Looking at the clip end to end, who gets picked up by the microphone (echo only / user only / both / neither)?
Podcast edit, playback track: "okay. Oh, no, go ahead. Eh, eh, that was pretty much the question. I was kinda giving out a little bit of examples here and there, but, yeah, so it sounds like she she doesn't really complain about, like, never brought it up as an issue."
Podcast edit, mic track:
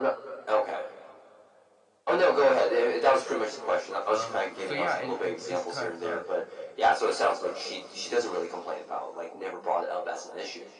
both